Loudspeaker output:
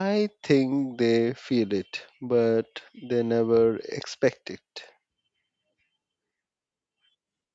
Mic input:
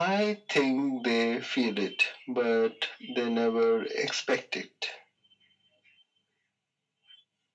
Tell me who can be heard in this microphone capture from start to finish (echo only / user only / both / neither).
echo only